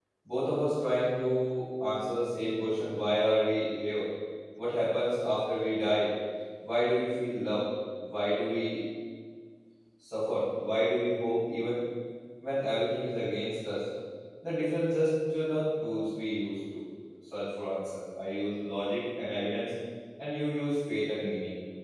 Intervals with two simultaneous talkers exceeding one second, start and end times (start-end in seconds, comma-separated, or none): none